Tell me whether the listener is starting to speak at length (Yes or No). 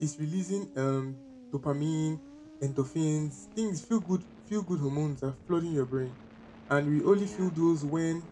No